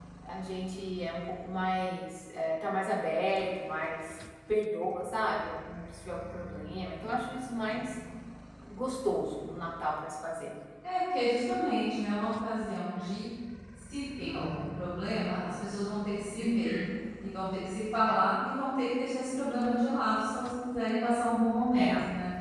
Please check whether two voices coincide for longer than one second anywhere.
No

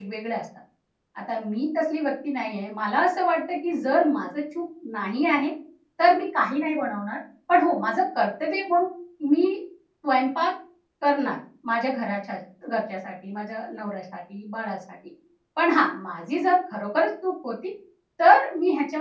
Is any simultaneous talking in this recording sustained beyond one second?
No

